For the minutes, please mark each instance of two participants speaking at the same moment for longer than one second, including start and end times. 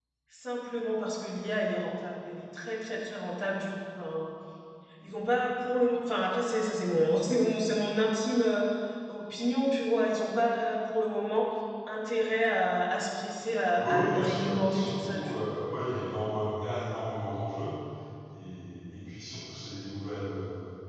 13.8-15.3

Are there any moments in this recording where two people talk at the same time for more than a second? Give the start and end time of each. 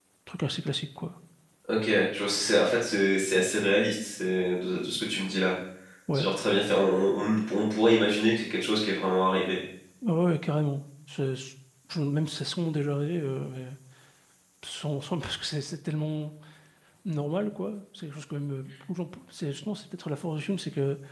none

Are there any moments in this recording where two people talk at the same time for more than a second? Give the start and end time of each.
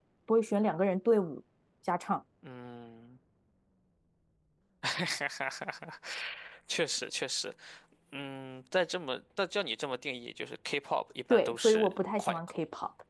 11.3-12.6

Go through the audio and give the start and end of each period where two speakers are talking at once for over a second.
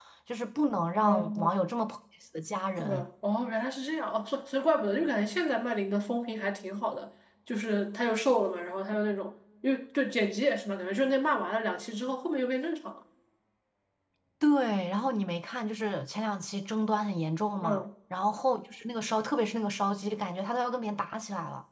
none

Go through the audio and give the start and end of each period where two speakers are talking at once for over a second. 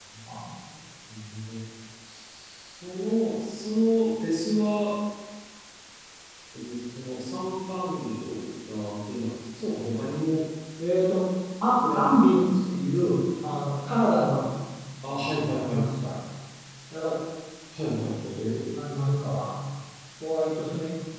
11.8-13.1

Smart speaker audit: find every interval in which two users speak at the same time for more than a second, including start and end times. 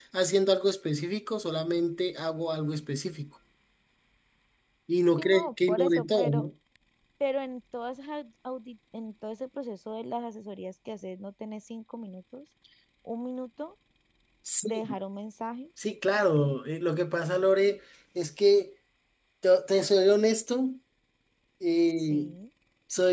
5.2-6.4

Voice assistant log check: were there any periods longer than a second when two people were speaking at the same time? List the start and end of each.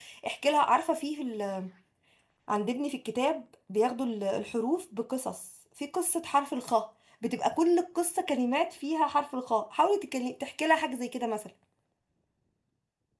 none

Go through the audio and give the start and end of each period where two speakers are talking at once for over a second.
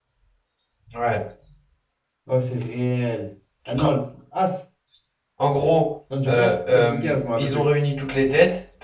6.2-7.7

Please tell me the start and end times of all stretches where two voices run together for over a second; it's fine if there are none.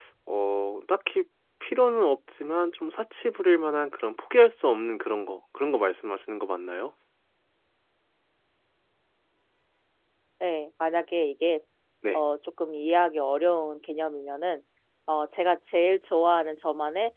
none

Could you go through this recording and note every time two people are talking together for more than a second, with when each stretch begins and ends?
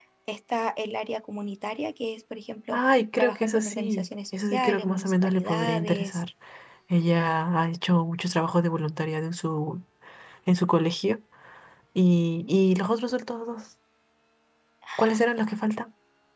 2.7-6.2

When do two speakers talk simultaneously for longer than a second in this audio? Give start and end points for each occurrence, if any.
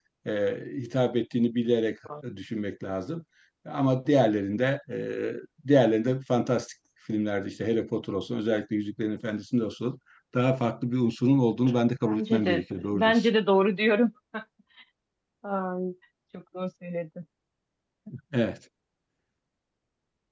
12.0-13.3

